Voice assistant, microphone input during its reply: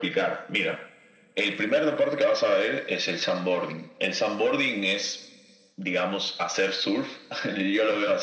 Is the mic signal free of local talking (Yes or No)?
Yes